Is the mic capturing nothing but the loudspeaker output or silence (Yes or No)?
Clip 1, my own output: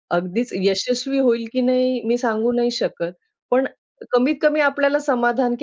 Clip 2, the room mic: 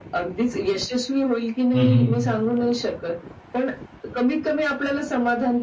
No